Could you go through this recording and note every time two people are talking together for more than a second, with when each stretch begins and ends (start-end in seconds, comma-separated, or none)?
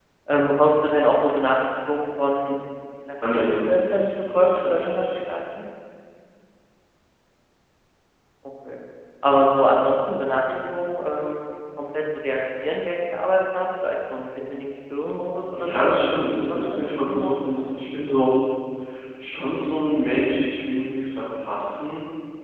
3.3-5.2, 15.6-17.6